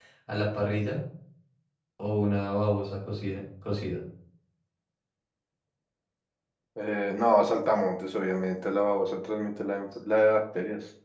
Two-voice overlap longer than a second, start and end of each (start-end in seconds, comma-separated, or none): none